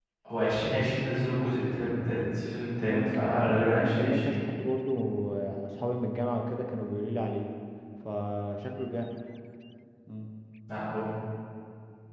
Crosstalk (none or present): present